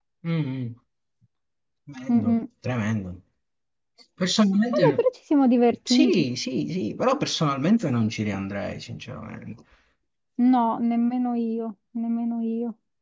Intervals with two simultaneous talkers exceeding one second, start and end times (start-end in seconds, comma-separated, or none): none